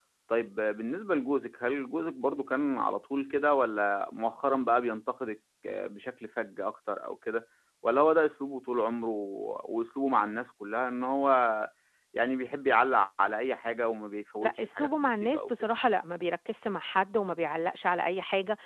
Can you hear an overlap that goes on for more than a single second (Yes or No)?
Yes